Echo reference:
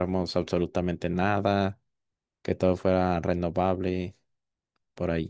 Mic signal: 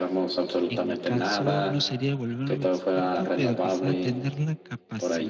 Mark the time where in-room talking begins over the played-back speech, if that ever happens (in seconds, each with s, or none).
0.7 s